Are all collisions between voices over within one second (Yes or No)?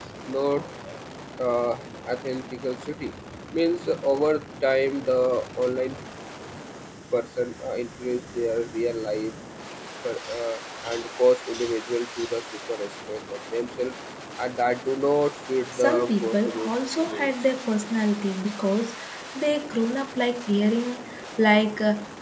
No